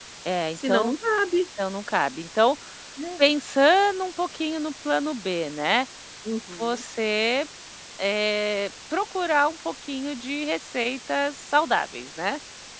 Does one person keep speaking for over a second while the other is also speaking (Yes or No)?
No